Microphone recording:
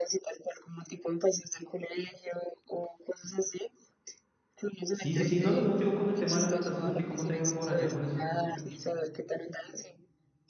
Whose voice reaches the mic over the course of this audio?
both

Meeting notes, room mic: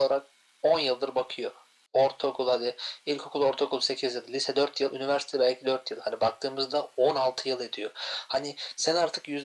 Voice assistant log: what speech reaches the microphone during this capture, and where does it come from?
echo only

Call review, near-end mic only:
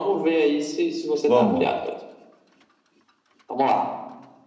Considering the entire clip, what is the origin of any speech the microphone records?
both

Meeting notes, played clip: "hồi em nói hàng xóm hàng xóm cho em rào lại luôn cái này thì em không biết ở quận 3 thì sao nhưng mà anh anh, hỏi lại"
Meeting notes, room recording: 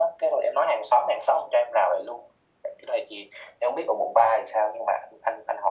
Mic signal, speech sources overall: echo only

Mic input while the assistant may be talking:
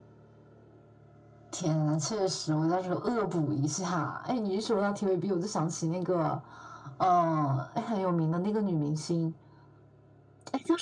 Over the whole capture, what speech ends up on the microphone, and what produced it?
echo only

